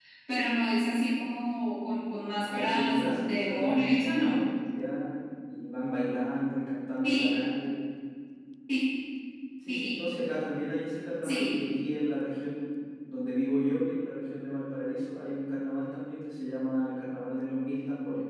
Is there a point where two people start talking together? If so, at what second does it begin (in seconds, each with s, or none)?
2.4 s